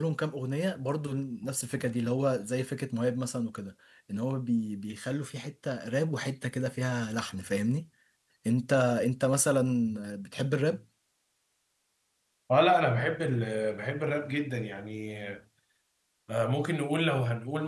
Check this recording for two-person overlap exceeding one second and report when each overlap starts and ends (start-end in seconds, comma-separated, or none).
none